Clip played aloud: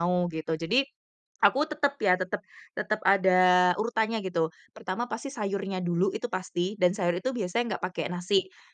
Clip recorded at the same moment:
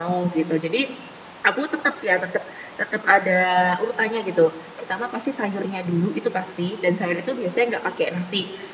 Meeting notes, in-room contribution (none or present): none